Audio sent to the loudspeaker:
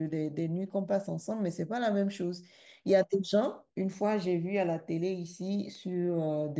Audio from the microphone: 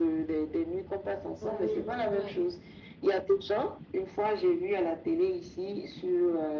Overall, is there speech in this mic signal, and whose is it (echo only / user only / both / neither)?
both